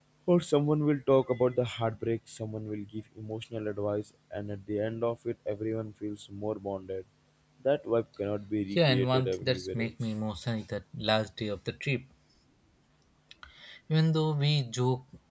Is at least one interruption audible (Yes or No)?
Yes